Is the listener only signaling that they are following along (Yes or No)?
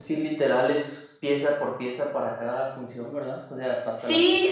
No